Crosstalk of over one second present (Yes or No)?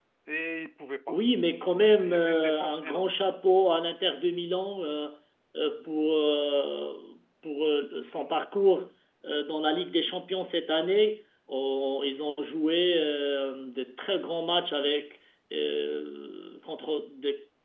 Yes